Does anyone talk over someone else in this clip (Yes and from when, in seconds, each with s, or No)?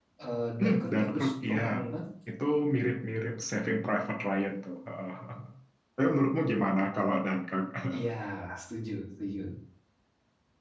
Yes, from 0.6 s